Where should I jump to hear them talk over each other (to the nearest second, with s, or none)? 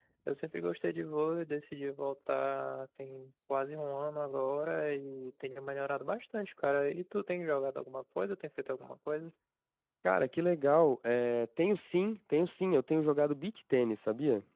none